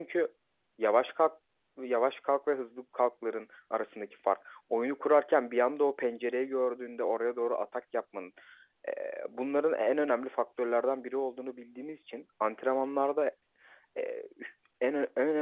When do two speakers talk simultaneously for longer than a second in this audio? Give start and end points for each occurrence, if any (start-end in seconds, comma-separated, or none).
none